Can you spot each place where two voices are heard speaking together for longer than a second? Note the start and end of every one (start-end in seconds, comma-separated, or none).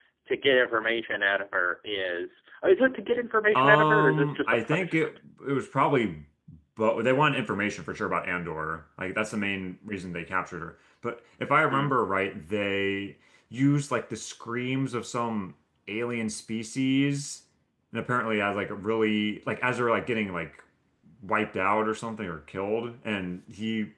3.5-5.1